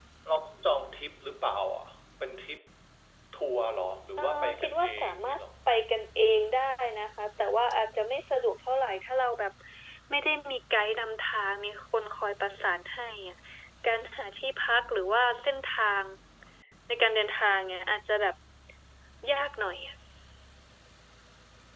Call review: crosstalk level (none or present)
present